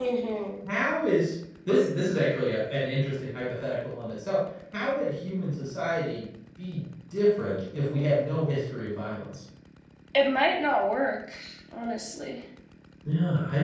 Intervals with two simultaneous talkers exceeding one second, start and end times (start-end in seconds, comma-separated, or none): none